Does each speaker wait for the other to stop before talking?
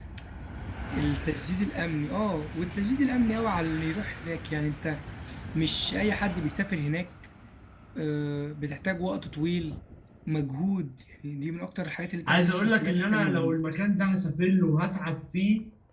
No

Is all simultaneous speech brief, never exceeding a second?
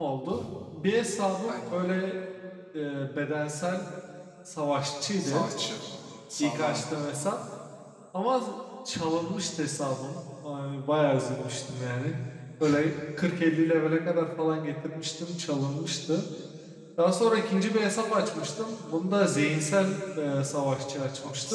Yes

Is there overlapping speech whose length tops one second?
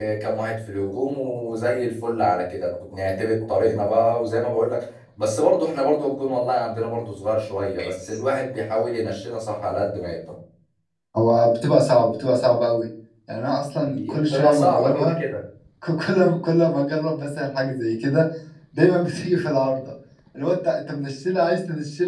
Yes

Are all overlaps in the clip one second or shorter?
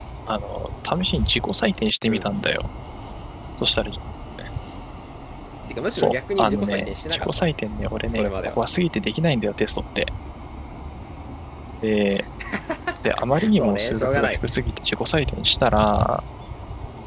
No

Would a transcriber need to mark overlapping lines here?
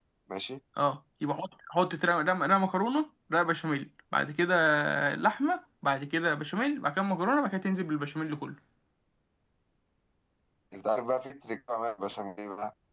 No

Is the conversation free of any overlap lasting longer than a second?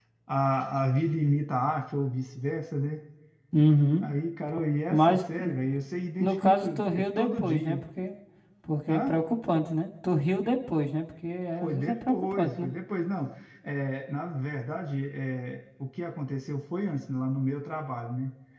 No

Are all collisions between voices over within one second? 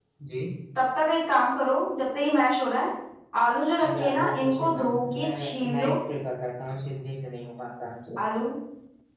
No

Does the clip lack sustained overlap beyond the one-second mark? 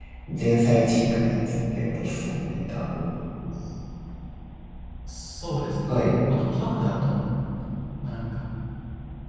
Yes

